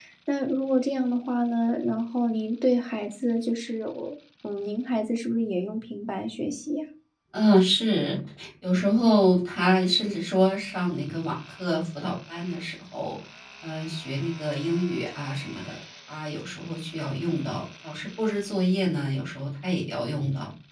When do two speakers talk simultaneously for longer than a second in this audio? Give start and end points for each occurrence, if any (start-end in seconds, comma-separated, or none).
none